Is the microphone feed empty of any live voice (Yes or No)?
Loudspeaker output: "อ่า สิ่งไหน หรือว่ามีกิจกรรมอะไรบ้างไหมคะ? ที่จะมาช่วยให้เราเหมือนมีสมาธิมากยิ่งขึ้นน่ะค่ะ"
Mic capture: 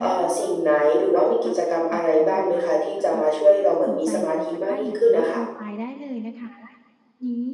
No